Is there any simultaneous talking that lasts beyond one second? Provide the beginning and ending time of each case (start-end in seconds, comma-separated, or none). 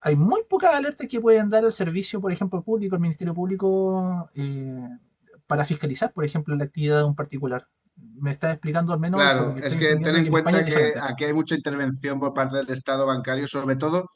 9.2-11.0